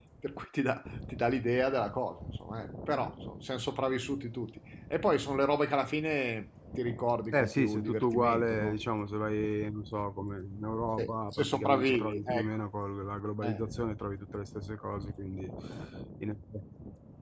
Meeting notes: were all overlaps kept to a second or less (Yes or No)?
No